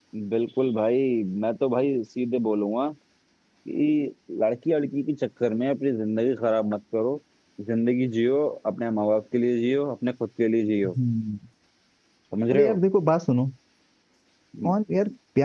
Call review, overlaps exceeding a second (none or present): none